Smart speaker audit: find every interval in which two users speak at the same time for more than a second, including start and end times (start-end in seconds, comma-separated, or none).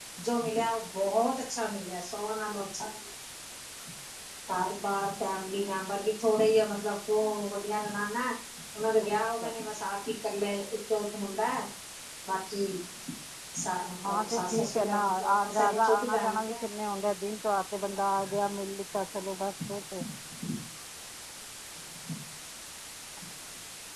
14.1-16.6